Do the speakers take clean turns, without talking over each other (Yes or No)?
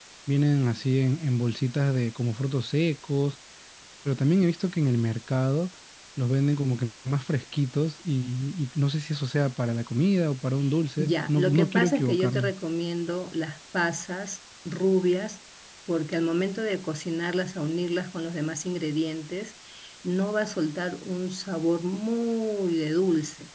No